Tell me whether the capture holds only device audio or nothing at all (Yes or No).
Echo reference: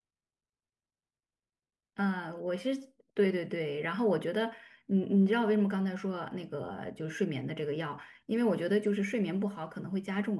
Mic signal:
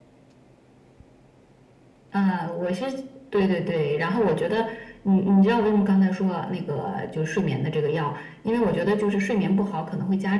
Yes